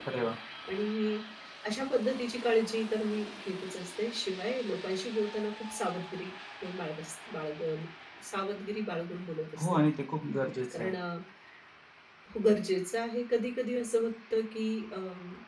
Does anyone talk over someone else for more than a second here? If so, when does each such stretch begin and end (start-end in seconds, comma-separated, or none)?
none